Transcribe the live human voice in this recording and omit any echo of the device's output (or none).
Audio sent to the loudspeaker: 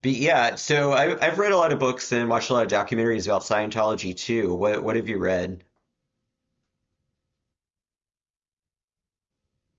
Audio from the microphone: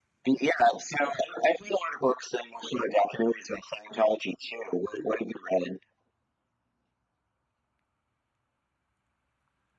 none